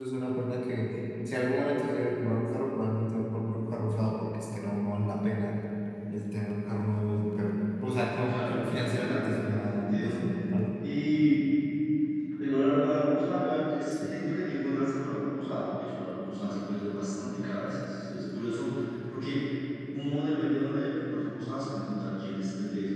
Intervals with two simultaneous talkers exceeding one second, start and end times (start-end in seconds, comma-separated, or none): 8.1-10.2